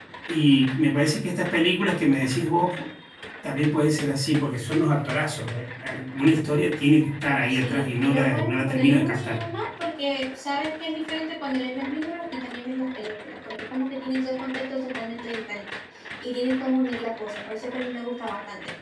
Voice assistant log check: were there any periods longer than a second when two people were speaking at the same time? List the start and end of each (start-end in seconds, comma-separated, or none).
7.5-9.5